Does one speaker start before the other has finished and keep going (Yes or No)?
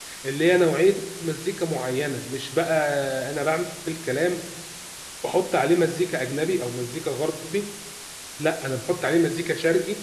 No